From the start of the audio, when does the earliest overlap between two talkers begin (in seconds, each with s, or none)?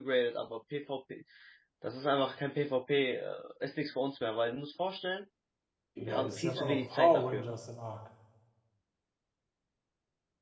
6.1 s